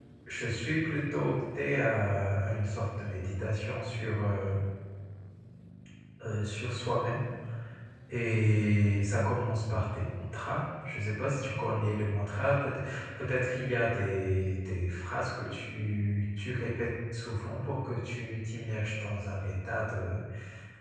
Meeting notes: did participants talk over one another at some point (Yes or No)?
No